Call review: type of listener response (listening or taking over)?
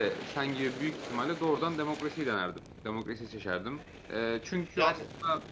listening